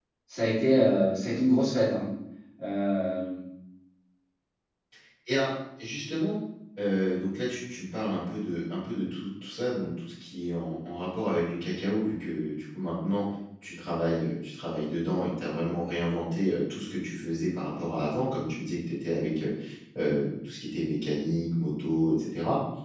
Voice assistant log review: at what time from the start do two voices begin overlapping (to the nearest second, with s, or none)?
none